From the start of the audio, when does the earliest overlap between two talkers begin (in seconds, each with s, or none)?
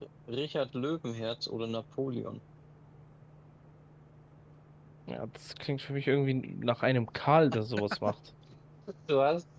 none